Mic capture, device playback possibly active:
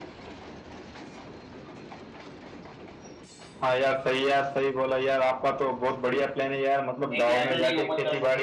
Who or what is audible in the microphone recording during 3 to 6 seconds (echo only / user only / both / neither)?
echo only